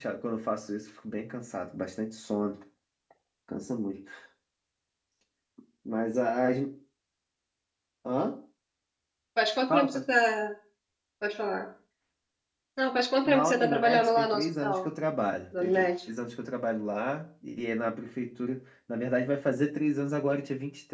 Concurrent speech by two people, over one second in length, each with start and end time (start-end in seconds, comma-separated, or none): 13.2-14.9